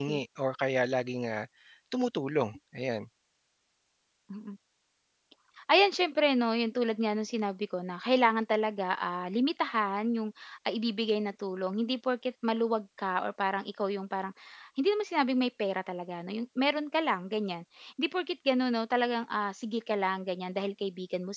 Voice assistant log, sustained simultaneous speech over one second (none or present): none